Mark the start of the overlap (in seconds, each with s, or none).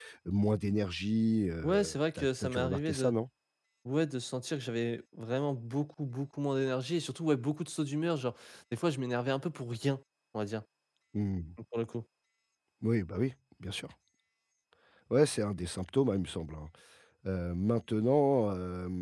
1.6 s